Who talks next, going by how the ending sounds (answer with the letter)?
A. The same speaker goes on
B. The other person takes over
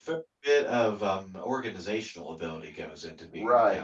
B